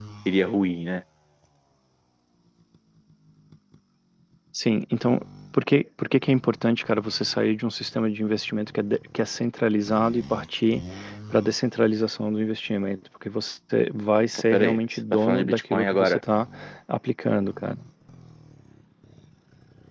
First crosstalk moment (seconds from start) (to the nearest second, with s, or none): 15 s